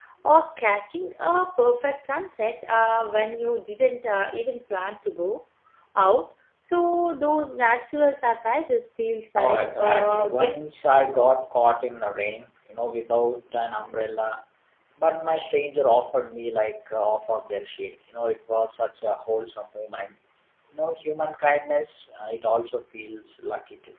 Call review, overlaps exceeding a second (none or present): present